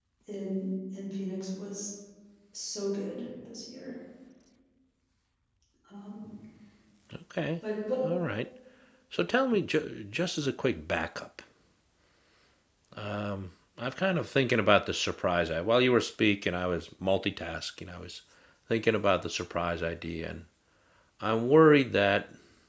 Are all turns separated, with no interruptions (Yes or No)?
Yes